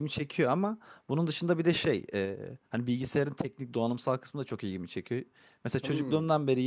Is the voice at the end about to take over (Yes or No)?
No